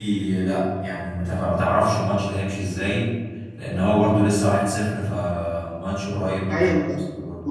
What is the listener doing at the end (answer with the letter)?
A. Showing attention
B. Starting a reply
B